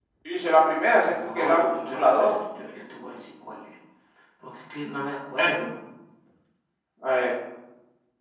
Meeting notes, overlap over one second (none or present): present